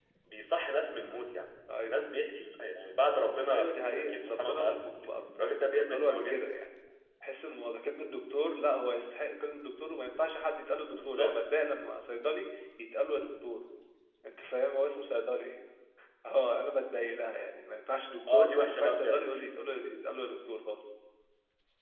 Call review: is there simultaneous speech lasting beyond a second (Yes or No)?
Yes